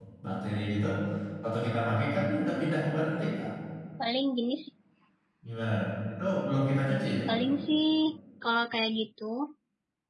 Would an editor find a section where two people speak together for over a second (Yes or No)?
No